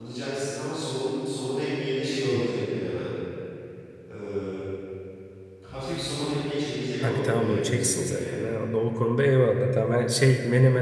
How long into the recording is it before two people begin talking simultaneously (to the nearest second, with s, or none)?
7 s